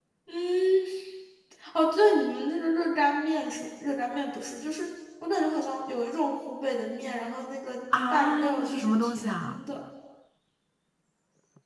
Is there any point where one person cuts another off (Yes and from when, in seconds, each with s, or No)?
Yes, from 7.9 s